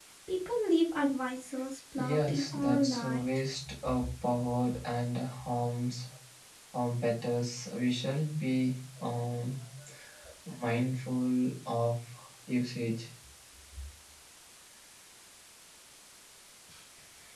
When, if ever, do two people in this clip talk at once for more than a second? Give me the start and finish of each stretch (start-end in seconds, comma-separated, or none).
2.0-3.2